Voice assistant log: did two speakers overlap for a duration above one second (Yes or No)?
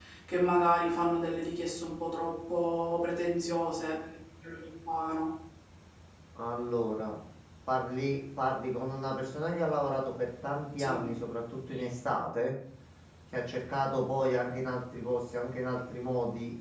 No